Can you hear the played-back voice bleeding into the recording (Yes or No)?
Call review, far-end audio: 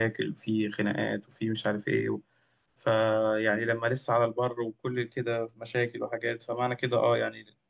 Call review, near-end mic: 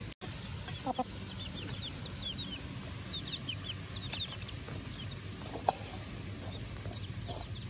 No